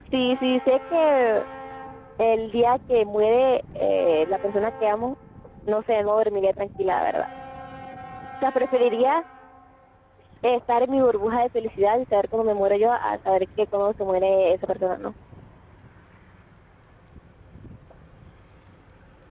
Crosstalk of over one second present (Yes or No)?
No